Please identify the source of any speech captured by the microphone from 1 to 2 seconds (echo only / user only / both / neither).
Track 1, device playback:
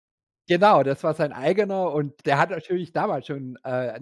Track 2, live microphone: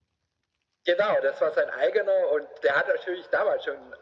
echo only